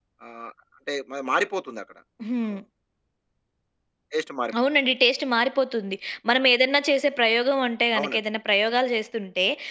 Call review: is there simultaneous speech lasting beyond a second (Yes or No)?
No